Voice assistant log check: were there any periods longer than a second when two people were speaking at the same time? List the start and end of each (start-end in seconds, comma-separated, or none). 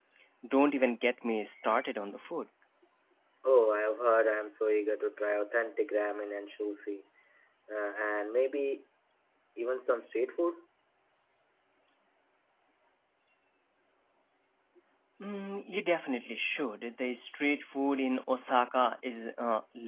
none